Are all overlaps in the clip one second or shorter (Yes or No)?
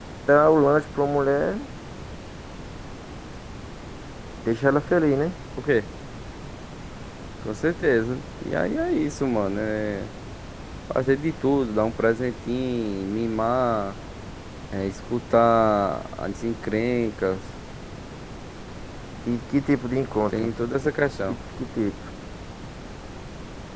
Yes